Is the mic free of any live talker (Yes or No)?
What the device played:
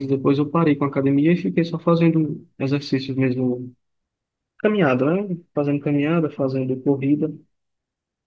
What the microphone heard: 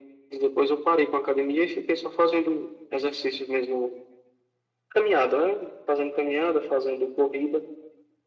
Yes